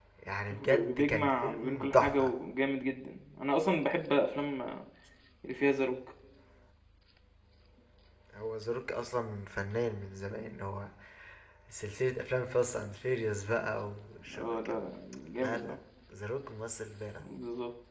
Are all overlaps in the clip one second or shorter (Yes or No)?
No